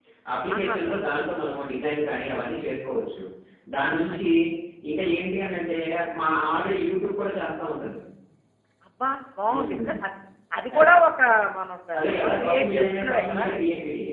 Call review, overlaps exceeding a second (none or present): present